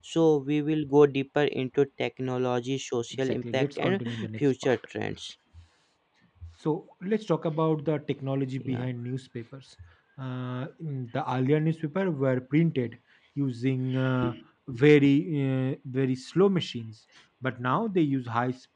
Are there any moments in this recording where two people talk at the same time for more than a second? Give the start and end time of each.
3.2-4.7

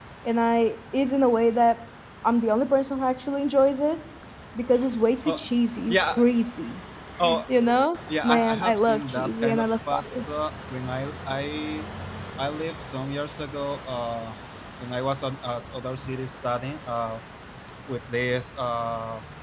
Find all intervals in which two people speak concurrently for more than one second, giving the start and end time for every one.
8.2-10.2

